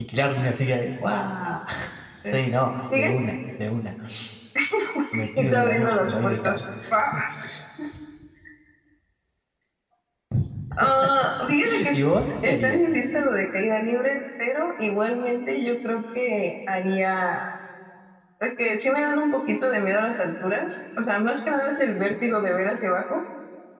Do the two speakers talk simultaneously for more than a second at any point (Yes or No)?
Yes